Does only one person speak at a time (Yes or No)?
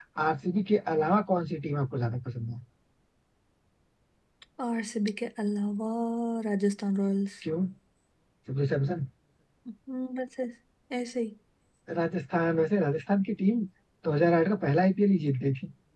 Yes